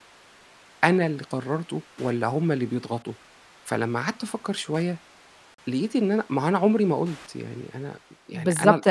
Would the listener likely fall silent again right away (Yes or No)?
No